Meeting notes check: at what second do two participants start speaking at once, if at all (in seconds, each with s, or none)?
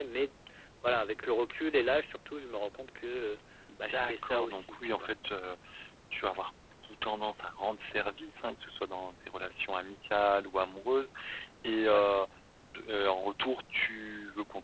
3.8 s